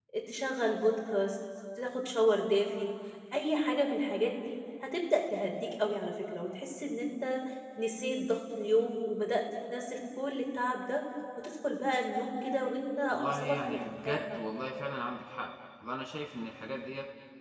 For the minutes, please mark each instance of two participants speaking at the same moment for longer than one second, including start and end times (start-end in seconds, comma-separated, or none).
13.1-14.4